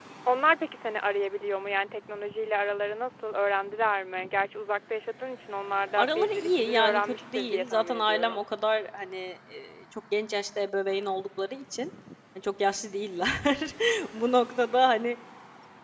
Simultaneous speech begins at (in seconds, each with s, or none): 6.0 s